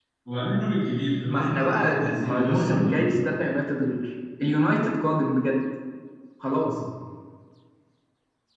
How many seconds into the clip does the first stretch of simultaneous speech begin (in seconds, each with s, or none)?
1.3 s